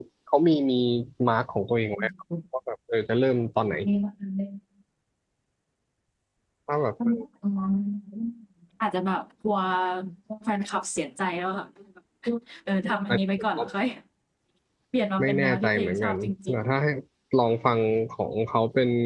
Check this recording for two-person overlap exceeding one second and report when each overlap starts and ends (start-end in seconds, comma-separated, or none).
15.2-16.6